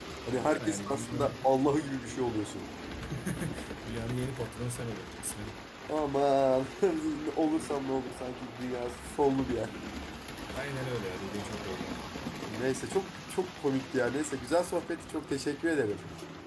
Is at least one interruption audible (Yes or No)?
Yes